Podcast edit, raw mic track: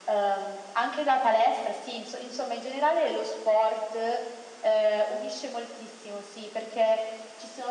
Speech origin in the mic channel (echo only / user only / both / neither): echo only